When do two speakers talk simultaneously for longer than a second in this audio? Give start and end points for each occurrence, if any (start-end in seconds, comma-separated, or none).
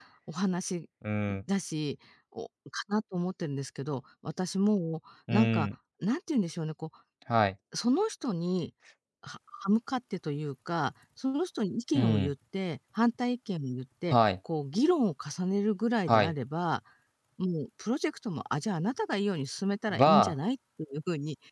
none